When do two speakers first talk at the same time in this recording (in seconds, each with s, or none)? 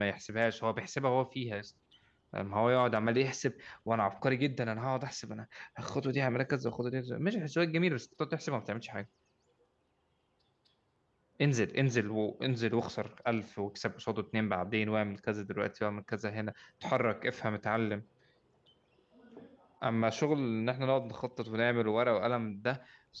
none